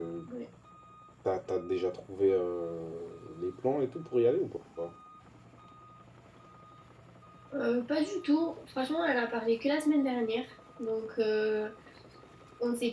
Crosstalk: none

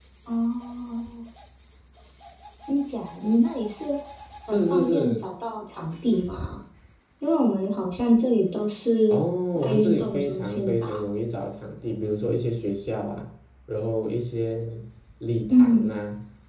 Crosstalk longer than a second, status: present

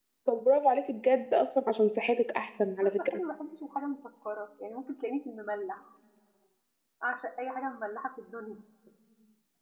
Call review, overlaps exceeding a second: none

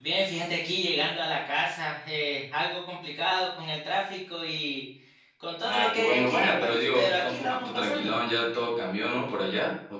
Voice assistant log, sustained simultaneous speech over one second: present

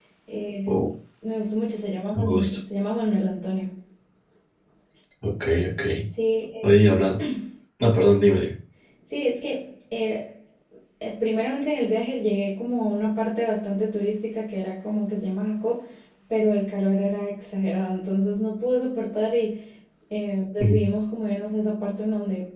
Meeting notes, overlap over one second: none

